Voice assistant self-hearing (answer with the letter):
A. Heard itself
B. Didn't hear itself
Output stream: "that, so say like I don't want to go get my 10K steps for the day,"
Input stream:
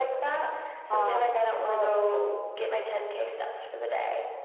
A